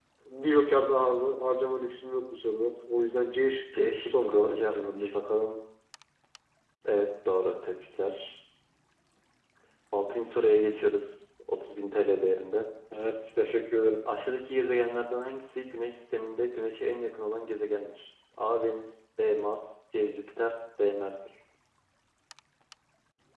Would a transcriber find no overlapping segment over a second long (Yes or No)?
No